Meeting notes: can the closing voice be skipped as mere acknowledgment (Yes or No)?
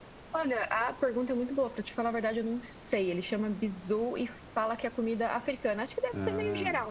Yes